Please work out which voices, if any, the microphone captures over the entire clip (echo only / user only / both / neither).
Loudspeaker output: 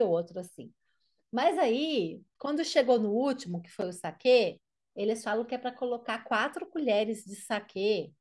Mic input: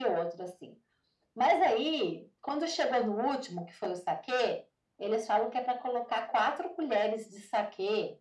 echo only